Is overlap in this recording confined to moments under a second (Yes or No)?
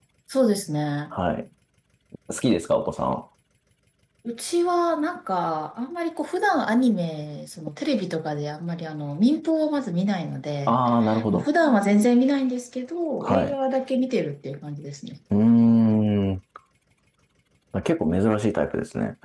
Yes